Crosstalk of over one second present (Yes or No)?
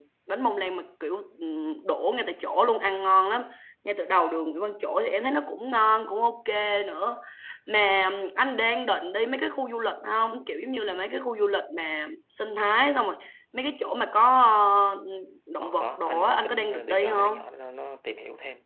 Yes